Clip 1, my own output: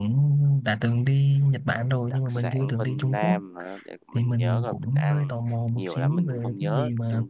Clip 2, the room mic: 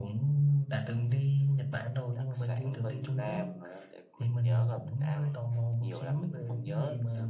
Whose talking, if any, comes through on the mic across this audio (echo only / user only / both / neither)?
echo only